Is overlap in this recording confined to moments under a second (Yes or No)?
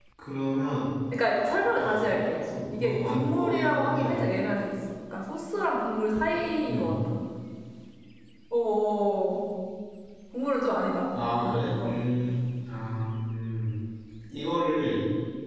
No